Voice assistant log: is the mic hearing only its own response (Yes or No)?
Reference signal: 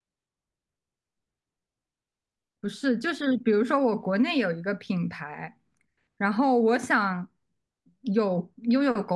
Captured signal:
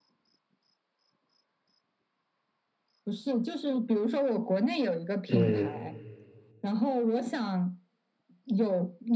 No